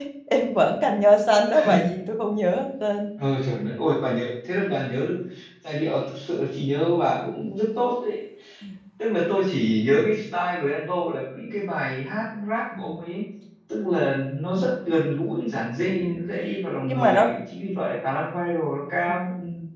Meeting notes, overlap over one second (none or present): none